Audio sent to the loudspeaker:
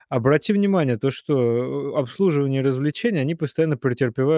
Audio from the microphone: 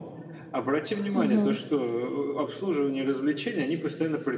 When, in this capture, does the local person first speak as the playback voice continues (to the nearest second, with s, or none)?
1 s